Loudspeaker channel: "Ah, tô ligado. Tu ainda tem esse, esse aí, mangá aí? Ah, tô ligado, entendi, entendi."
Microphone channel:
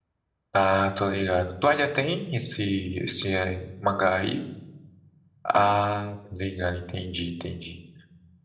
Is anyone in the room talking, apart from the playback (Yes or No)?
No